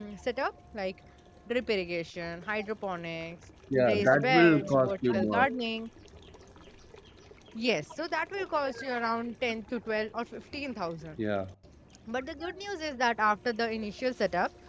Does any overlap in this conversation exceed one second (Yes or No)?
Yes